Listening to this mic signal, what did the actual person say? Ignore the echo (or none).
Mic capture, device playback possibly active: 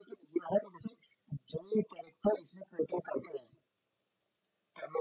none